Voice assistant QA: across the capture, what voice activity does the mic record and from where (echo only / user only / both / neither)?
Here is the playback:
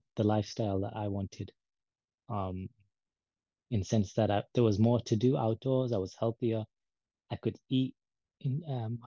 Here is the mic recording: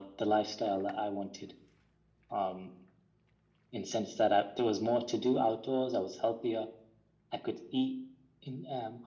echo only